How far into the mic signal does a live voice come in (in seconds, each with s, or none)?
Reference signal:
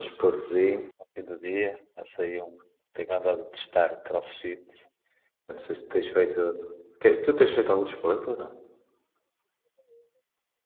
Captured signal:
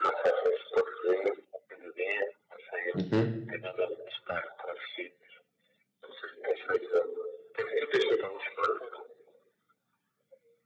2.9 s